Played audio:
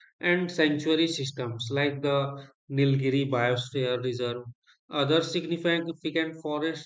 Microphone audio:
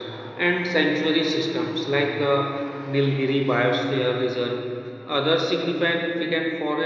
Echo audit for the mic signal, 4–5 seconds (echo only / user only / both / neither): echo only